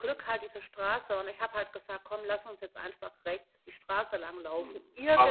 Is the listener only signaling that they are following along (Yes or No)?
No